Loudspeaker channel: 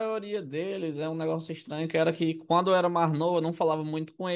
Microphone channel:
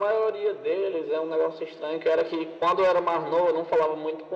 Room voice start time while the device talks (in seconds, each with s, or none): none